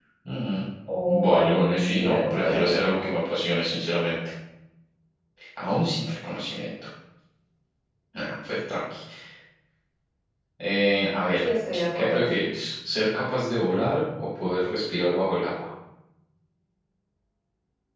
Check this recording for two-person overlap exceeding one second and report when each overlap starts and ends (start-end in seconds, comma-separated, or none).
1.2-3.1